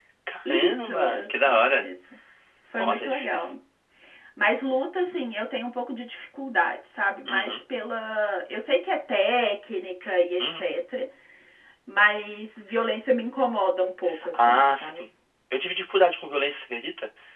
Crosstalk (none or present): present